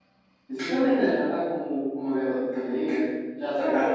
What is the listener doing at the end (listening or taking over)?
taking over